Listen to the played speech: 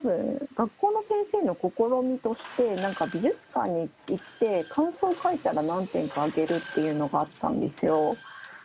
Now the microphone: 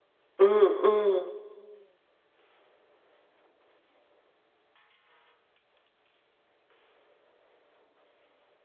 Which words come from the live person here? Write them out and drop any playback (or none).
うん、うん、